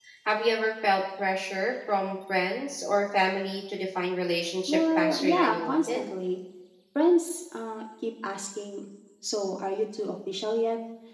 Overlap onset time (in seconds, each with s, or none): 4.7 s